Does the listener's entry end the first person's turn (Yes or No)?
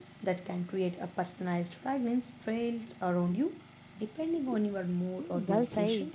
Yes